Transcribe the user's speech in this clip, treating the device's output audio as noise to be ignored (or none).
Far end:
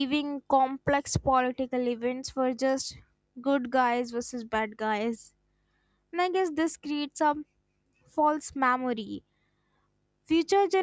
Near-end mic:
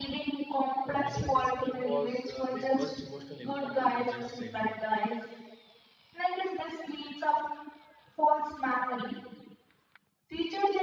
For many, this film was uh, their first emotional encounter with genocide.